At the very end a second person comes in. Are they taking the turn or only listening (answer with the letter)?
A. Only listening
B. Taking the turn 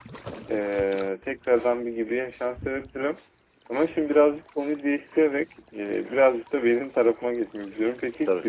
A